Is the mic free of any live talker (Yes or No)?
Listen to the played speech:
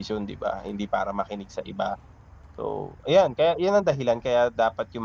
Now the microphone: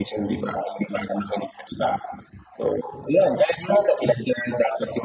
Yes